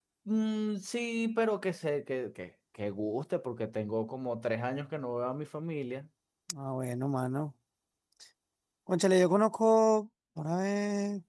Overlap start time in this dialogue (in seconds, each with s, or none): none